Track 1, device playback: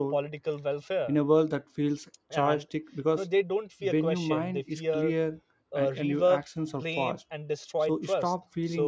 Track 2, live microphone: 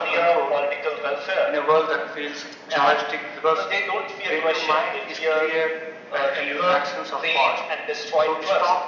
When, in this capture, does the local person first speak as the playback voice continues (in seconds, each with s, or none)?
none